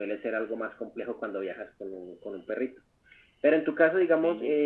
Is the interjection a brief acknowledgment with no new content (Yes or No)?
Yes